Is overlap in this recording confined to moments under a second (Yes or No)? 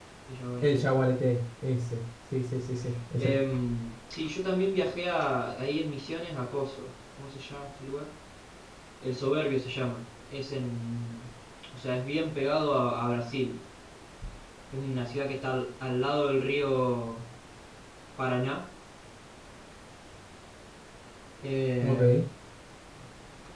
Yes